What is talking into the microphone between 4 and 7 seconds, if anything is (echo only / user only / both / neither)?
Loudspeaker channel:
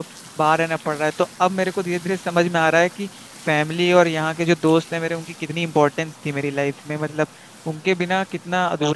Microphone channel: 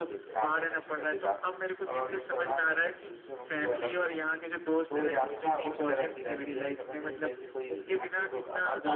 both